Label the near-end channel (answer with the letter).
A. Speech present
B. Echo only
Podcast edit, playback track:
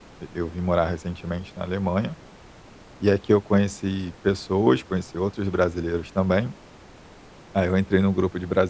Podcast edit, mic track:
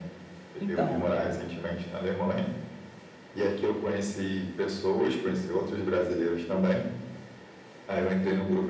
A